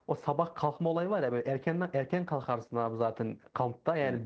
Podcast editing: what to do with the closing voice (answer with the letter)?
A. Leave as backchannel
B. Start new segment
A